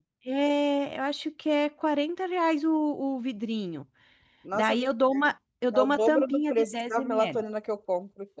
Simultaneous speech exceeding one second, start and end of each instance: 5.7-7.4

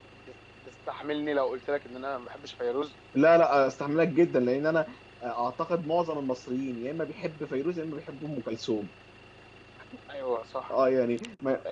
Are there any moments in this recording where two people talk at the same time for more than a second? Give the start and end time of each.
none

